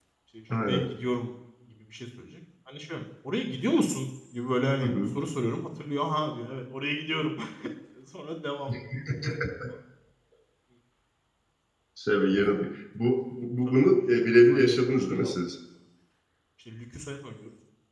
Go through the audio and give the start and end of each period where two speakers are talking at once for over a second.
13.7-15.3

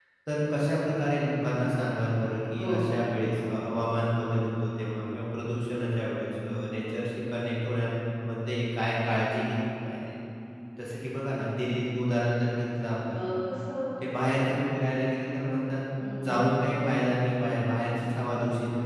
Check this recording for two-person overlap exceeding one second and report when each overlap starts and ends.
none

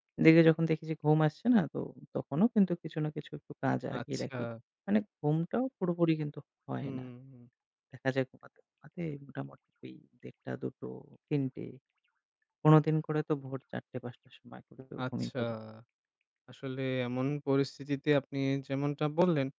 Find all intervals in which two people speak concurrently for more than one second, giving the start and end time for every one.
none

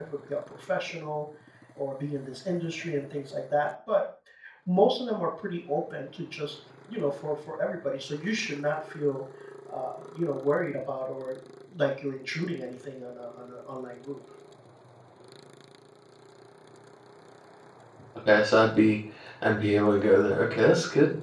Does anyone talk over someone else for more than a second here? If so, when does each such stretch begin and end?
none

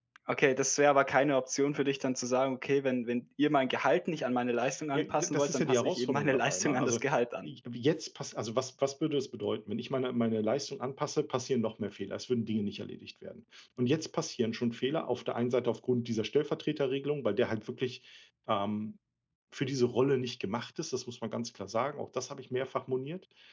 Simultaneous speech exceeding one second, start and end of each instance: 4.9-7.0

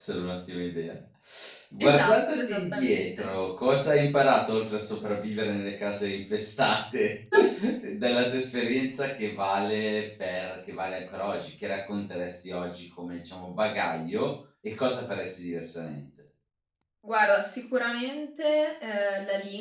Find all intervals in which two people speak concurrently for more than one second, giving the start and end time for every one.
1.8-3.3

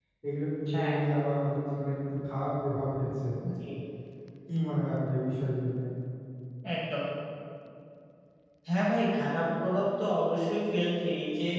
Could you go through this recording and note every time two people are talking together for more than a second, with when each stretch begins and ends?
none

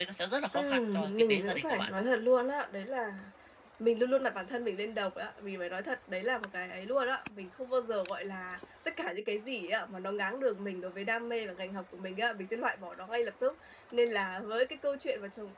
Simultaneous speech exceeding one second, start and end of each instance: 0.5-1.9

